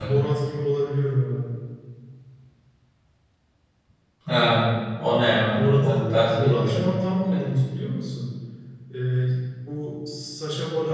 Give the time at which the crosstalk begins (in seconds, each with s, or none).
5.5 s